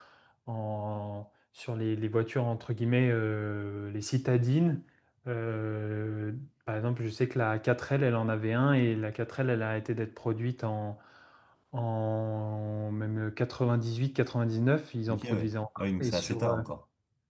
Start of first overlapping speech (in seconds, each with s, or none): 15.1 s